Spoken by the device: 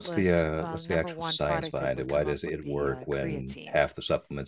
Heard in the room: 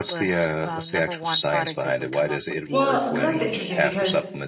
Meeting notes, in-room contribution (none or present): present